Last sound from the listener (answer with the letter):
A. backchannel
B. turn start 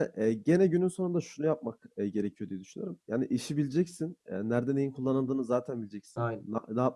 A